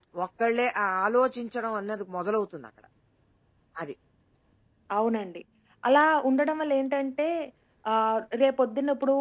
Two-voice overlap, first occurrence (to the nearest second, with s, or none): none